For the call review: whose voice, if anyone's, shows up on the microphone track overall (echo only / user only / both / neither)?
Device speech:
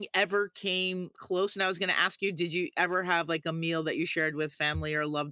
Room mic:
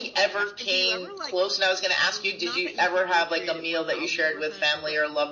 both